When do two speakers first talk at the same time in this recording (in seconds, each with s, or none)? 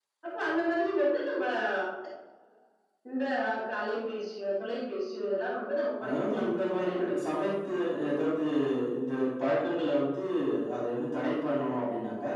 6.0 s